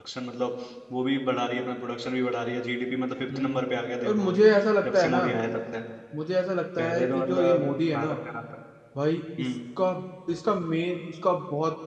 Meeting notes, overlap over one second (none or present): present